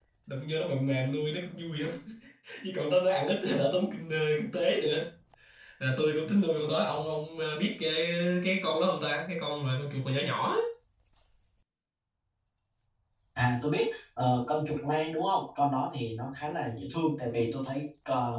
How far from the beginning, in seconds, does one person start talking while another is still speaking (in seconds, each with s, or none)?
none